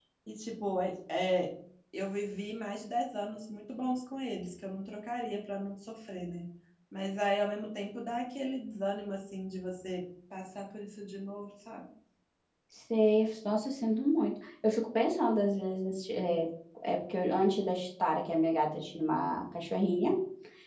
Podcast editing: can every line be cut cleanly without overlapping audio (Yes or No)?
Yes